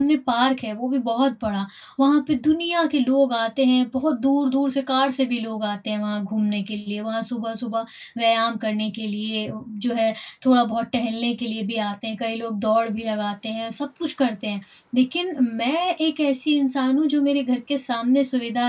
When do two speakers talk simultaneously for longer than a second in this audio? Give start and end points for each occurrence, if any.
none

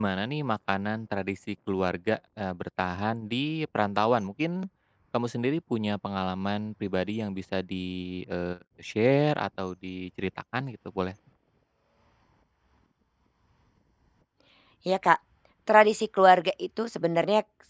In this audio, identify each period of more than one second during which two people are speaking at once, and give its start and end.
none

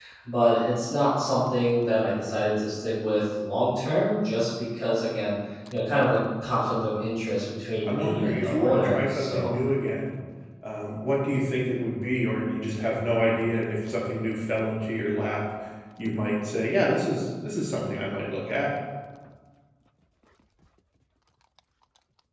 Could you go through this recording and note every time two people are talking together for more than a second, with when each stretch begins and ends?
7.8-9.5

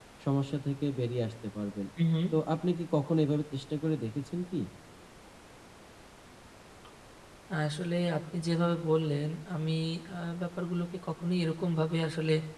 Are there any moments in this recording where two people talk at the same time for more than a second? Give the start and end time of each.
none

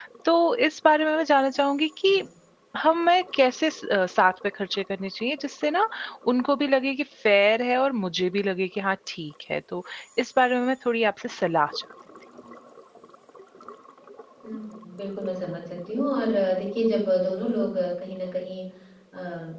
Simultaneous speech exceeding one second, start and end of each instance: none

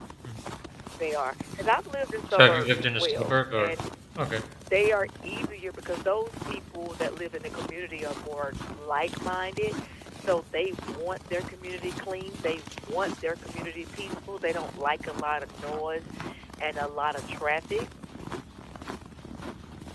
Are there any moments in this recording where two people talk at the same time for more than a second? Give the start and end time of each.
2.3-3.7

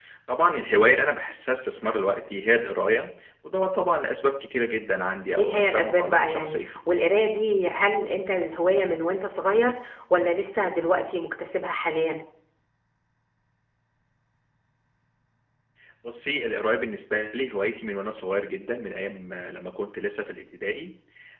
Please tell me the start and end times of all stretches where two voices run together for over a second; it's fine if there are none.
5.4-6.6

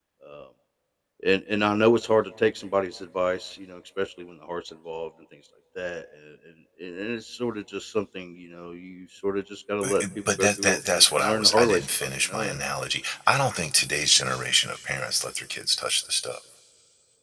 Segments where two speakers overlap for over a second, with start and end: 9.8-12.6

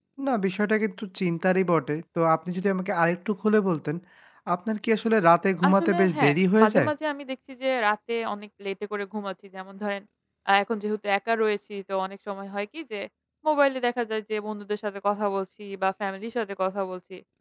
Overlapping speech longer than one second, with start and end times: 5.7-6.9

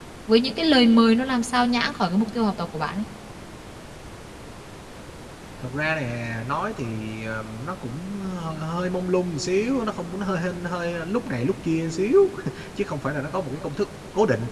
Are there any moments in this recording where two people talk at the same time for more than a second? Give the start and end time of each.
none

